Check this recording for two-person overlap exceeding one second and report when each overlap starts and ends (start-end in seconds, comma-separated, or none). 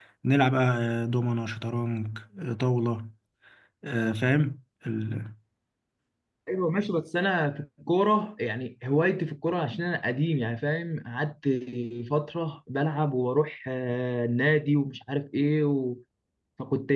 none